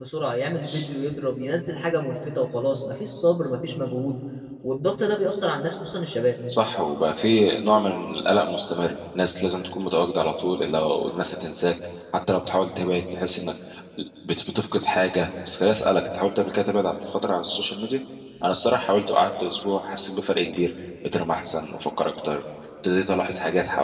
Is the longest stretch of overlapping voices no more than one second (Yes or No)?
Yes